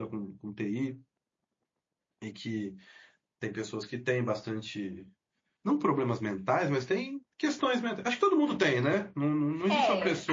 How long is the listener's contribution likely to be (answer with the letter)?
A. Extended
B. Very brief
A